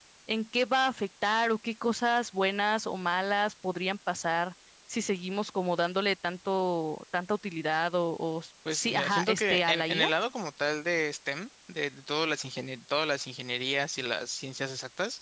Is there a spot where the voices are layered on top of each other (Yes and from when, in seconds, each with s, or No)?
Yes, from 8.6 s